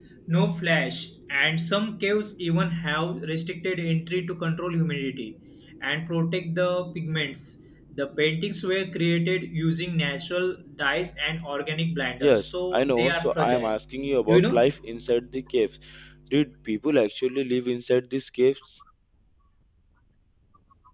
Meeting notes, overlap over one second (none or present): present